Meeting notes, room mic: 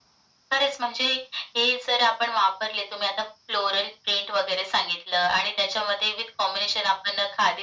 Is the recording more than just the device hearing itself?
No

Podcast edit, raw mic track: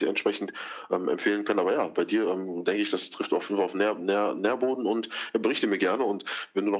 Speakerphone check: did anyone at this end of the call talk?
No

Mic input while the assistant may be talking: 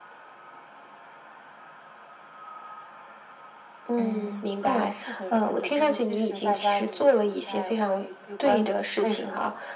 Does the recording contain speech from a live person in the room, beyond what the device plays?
No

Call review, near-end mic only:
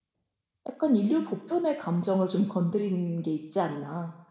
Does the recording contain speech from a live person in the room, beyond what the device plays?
Yes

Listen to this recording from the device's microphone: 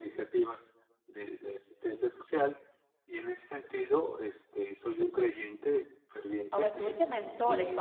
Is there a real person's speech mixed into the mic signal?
Yes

